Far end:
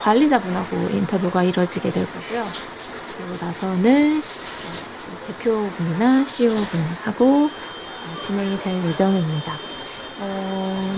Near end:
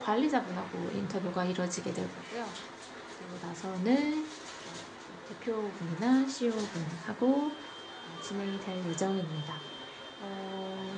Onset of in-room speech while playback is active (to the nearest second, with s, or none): none